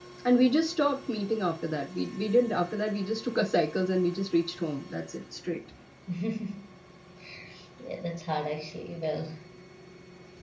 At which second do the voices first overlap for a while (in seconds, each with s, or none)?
none